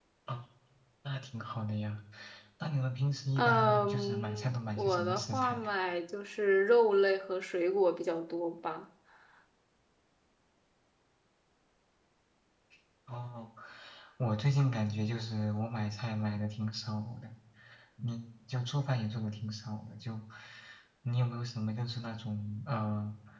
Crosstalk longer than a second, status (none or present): present